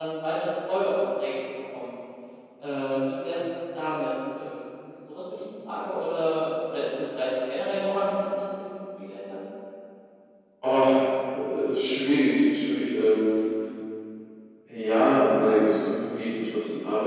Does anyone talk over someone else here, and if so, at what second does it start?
none

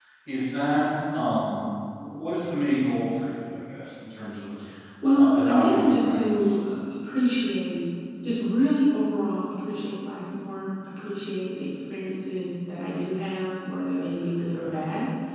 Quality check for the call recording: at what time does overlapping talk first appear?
5.1 s

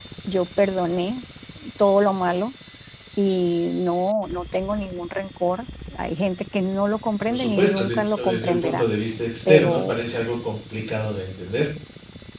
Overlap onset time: 7.3 s

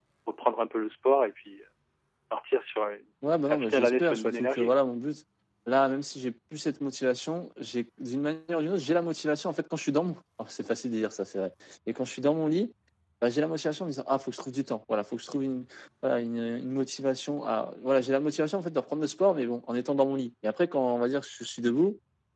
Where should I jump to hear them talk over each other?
3.5 s

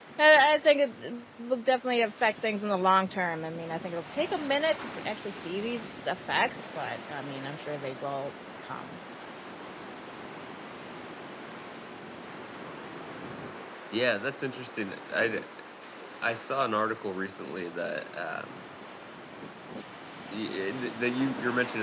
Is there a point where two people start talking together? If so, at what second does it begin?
none

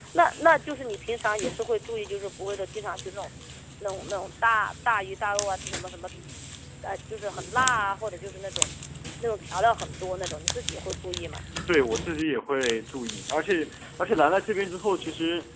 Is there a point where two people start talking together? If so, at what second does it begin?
none

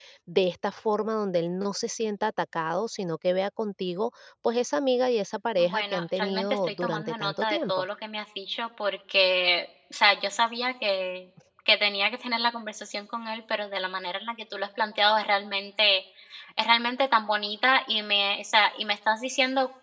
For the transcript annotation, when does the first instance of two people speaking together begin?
5.6 s

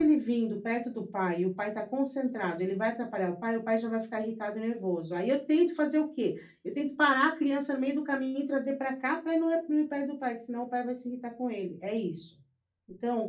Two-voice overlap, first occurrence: none

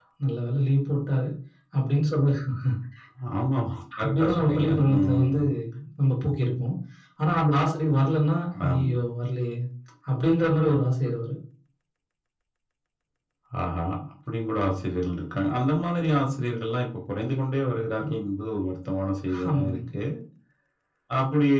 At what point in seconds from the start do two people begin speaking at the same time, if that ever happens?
4.0 s

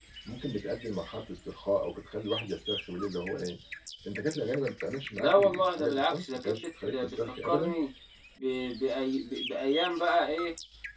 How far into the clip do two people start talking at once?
5.1 s

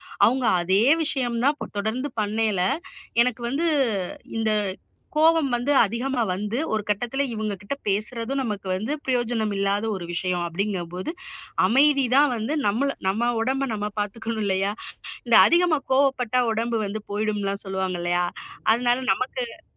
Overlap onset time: none

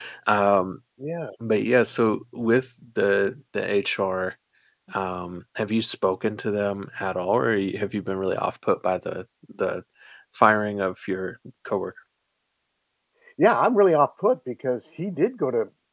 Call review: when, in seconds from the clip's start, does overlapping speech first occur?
none

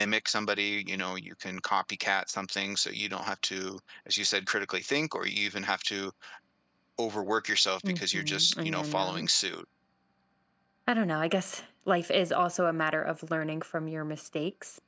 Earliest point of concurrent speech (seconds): 7.8 s

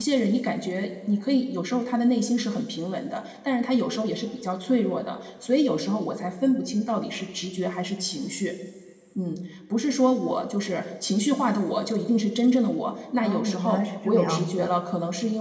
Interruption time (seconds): 13.2 s

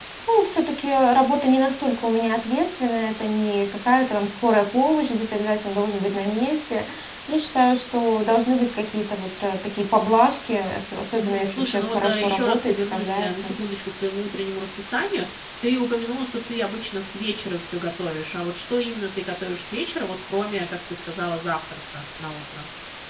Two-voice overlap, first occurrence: 11.1 s

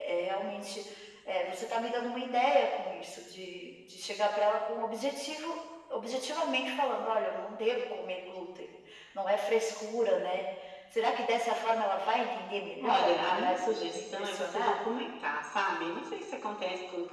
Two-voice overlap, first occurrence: 12.7 s

